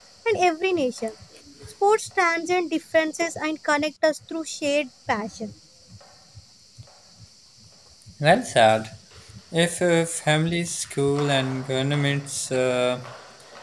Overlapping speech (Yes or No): No